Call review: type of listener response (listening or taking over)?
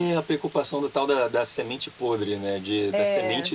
listening